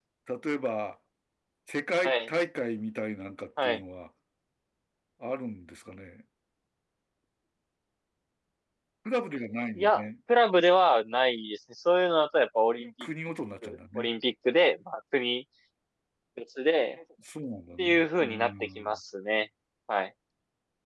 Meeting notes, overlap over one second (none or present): present